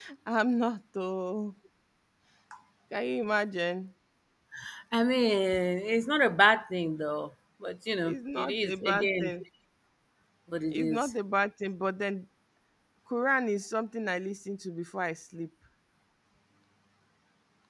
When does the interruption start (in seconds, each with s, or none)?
8.0 s